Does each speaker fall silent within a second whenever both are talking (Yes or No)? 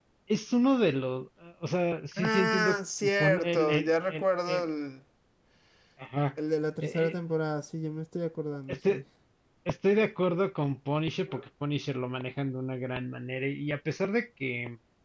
No